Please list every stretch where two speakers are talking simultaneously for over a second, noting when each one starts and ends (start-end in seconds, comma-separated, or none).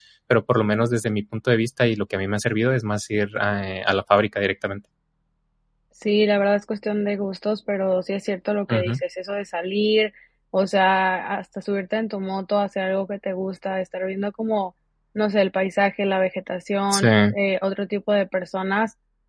none